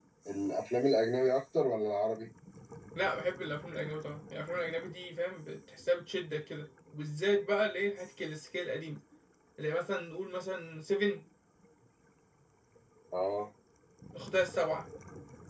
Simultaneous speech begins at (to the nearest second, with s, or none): none